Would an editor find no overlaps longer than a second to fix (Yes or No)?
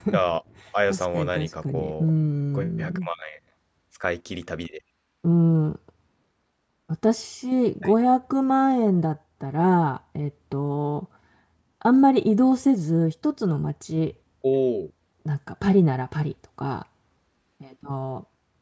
No